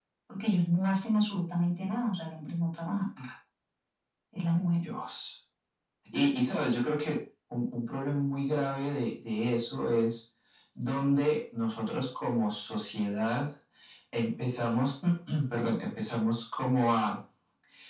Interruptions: none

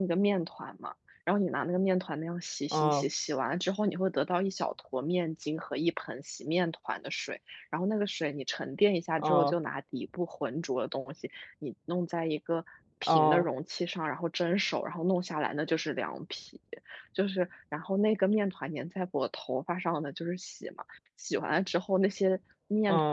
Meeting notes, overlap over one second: none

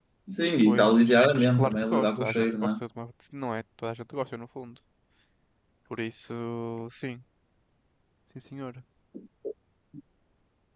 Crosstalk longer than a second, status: present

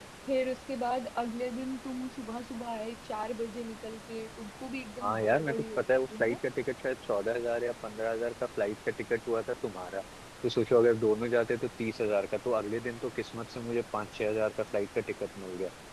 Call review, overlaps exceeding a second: present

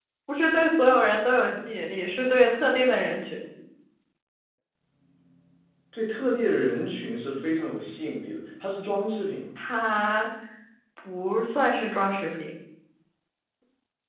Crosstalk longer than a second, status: none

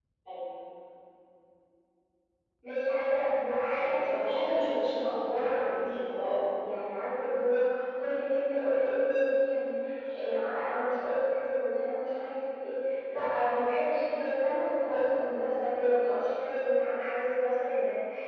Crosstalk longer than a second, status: present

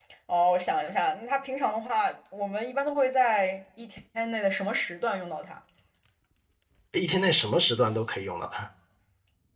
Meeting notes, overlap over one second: none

